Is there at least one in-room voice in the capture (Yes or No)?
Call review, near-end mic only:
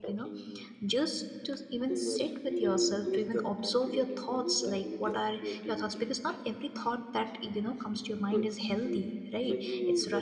Yes